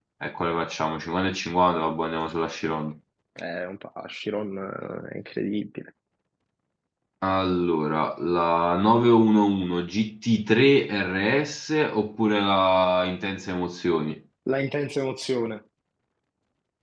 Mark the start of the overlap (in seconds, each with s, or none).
none